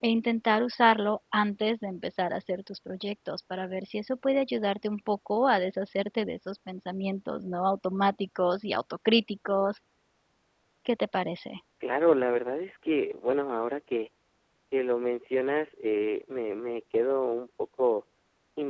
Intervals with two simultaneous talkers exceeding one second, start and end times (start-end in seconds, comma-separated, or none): none